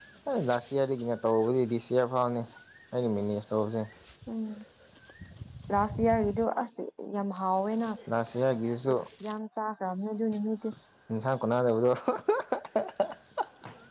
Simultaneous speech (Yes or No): No